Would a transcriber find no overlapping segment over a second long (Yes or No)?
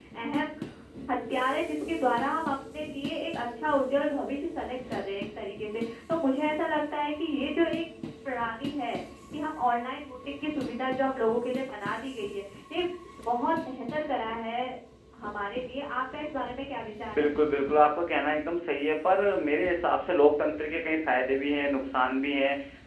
Yes